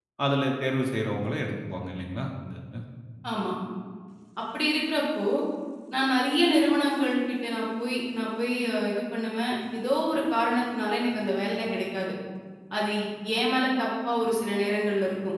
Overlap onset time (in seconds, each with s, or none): none